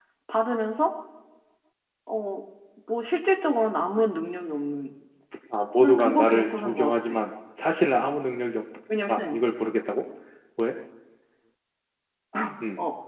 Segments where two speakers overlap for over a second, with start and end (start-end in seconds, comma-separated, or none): 5.8-7.2